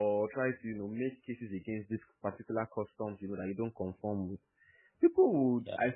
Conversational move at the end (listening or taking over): listening